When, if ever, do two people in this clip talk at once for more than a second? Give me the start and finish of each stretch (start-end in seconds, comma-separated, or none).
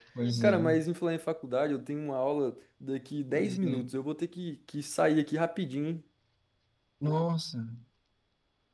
none